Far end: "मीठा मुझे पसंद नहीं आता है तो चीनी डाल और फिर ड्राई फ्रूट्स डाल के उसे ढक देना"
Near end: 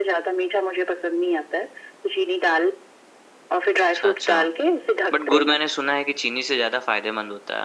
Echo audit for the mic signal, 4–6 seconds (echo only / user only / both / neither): both